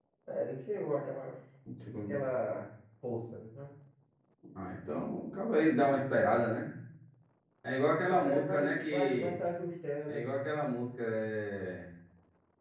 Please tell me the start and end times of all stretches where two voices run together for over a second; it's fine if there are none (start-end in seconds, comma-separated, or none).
8.1-9.3